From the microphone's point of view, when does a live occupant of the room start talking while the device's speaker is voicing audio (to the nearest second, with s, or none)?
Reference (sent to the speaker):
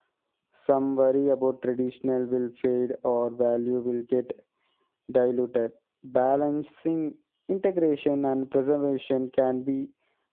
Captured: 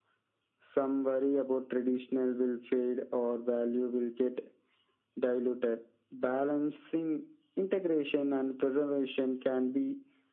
none